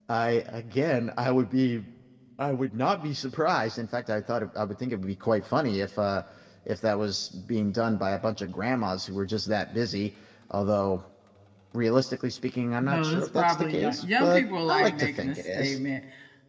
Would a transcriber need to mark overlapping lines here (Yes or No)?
Yes